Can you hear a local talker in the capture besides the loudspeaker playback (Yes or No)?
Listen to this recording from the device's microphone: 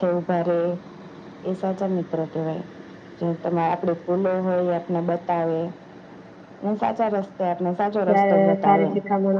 Yes